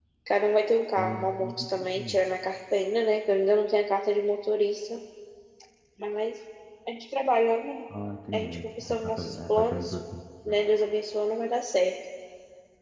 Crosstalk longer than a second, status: present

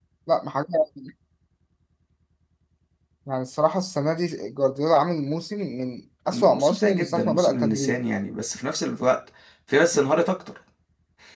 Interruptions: present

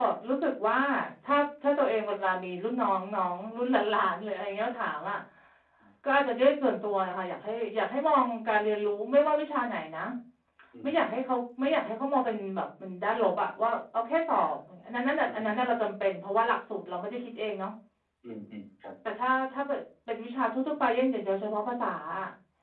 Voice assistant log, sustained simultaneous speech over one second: none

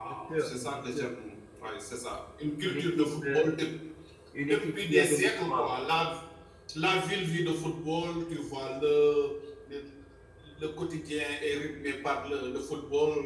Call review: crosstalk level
present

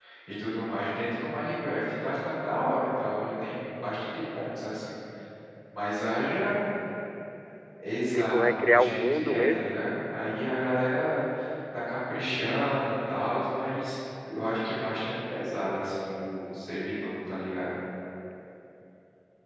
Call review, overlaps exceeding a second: present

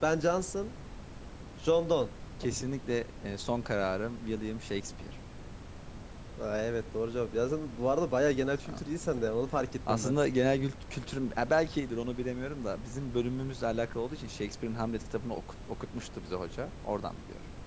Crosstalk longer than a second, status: none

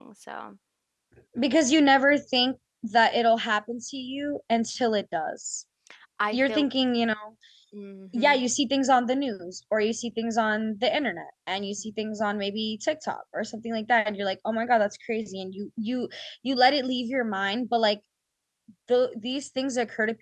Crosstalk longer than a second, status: none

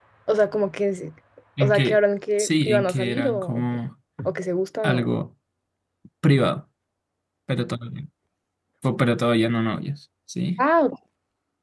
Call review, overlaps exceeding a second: present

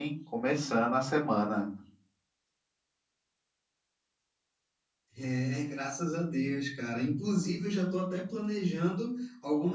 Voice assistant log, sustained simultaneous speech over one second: none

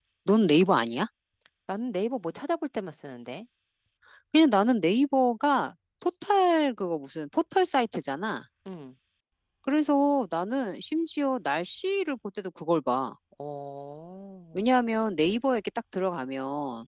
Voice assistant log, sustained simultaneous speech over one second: none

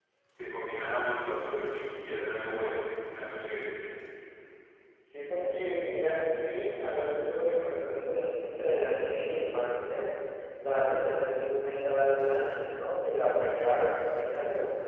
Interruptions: none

